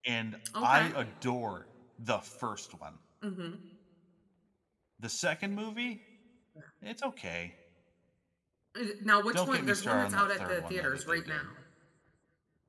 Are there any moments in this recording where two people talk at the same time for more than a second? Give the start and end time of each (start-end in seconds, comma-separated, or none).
9.3-11.5